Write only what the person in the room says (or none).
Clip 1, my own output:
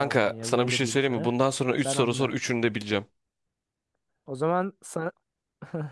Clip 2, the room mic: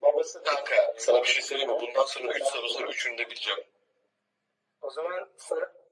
none